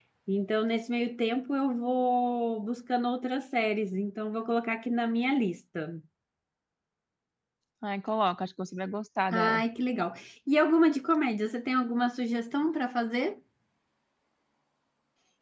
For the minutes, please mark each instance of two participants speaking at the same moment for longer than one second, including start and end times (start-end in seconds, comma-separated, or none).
none